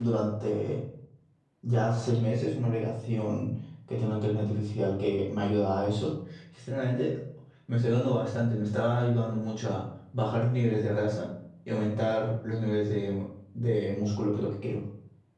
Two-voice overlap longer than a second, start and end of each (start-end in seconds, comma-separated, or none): none